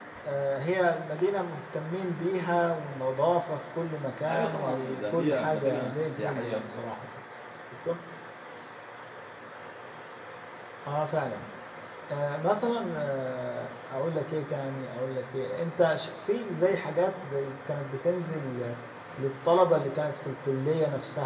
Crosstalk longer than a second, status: present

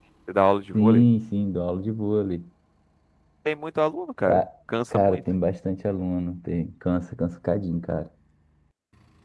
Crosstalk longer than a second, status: none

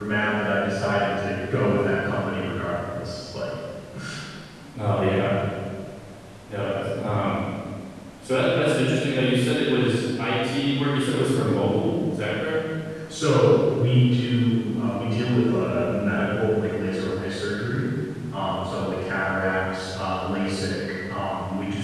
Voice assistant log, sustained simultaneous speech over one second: none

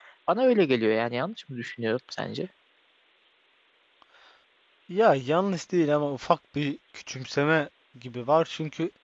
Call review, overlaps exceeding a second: none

